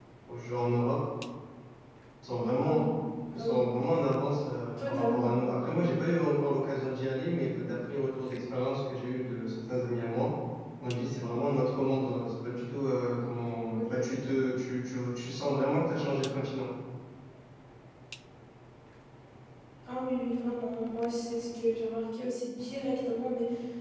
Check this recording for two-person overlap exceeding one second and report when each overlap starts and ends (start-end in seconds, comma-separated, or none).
none